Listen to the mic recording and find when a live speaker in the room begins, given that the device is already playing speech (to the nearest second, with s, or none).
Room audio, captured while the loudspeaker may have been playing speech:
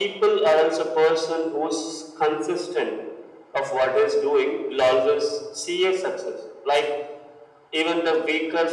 none